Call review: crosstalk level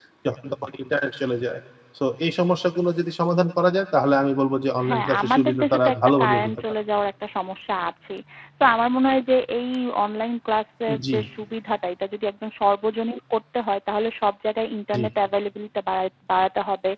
present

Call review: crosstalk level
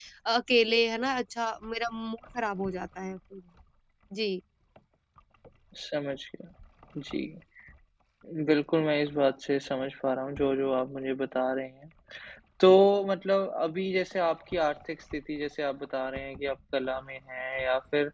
none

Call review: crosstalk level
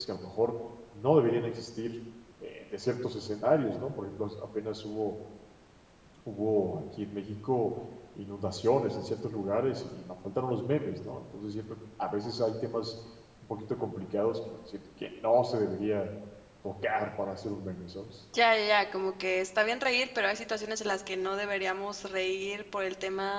none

